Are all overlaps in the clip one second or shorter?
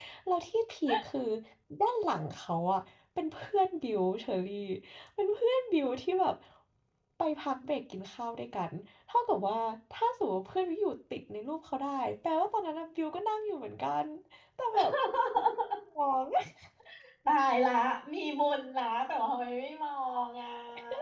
Yes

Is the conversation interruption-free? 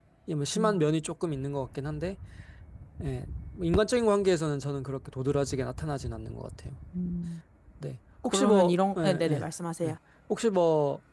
No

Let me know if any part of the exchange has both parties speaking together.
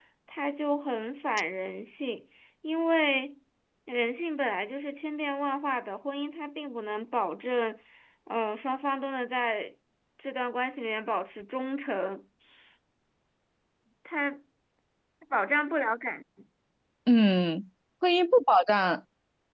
No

